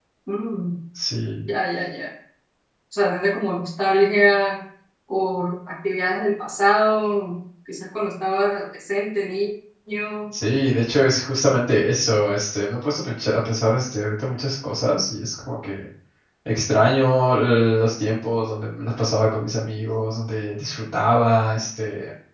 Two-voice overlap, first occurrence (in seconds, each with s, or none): none